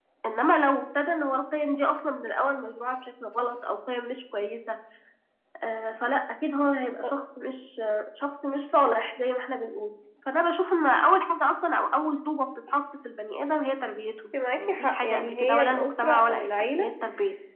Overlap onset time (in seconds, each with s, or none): 14.3 s